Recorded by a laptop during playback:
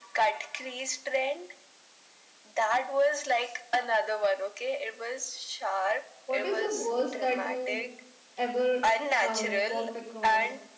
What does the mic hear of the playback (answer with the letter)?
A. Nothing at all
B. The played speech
B